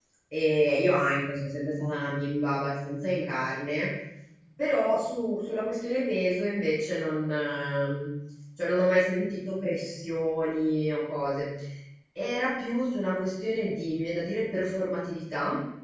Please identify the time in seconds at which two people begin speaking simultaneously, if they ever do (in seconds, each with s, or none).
none